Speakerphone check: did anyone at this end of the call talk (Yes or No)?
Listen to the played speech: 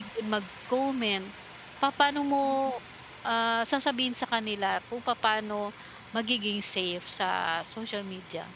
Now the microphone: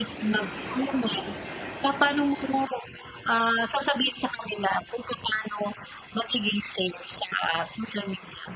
No